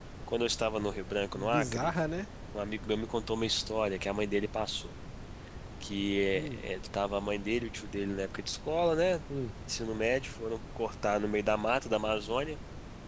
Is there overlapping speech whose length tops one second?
No

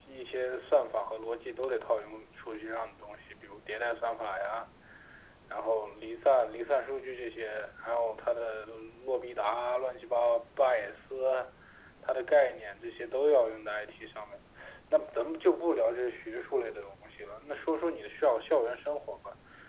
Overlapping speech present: No

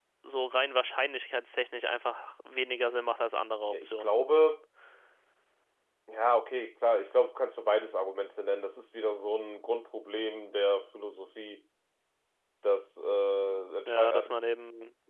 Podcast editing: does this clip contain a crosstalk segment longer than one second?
No

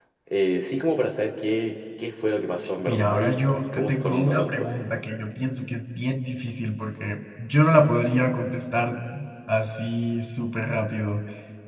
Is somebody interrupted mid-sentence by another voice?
Yes, from 2.9 s

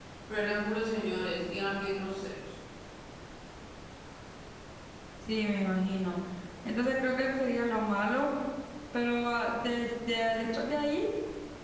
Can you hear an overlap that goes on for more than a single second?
No

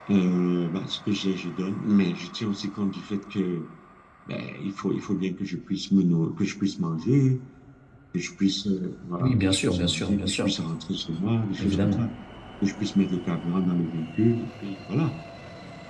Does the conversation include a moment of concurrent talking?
Yes, from 9.2 s

